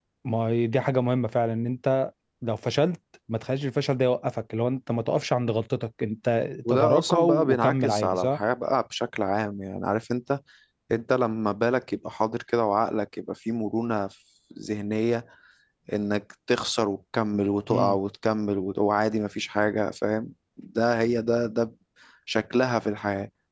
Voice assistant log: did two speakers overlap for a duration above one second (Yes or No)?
Yes